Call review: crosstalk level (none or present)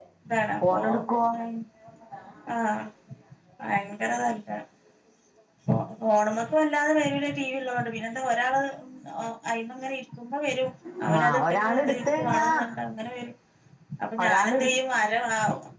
present